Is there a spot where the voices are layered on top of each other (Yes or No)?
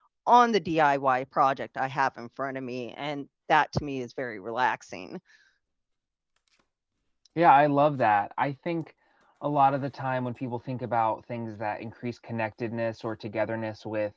No